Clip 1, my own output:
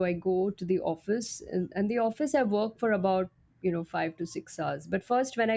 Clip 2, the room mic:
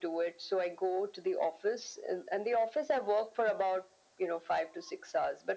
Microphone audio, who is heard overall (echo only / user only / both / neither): echo only